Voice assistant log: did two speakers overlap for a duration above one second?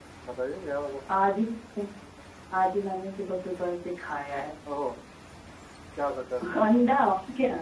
No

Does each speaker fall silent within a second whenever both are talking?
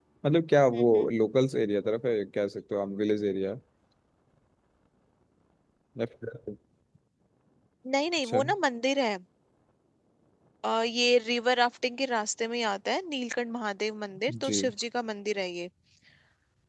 Yes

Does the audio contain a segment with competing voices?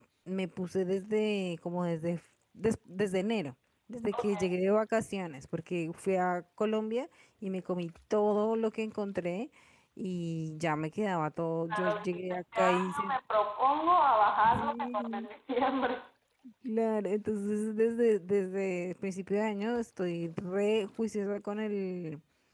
Yes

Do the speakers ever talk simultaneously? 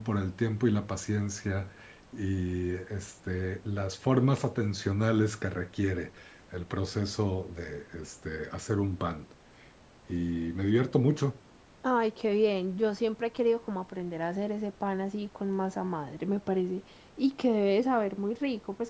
No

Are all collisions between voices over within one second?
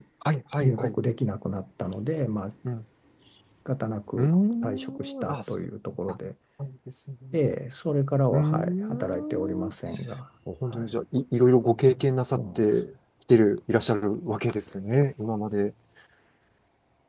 No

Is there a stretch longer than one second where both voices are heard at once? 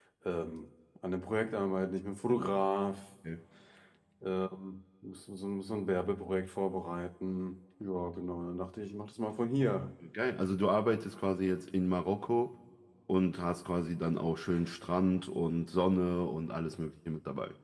No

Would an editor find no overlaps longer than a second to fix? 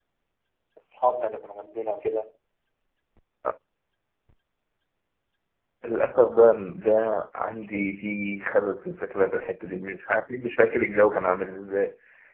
Yes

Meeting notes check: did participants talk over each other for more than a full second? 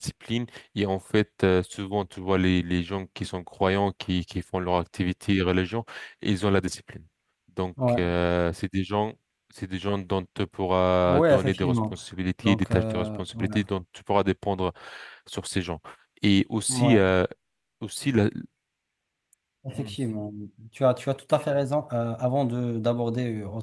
Yes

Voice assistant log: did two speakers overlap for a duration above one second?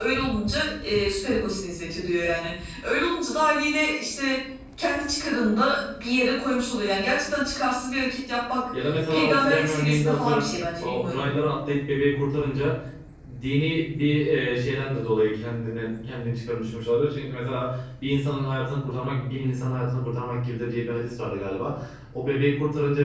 Yes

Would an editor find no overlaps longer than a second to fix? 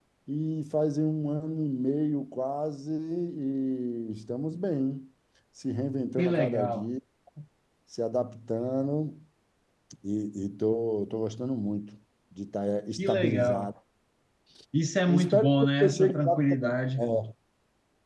No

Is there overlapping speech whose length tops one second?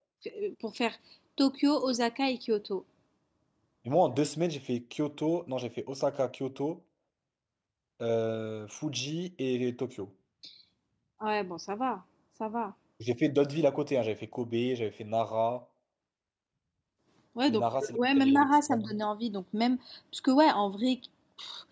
Yes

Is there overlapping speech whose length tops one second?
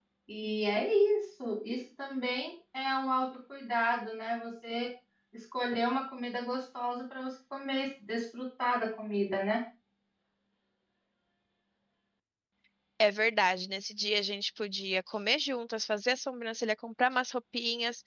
No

